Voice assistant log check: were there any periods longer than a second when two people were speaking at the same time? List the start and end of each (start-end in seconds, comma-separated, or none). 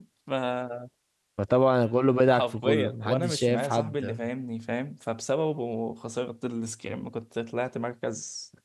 2.3-4.2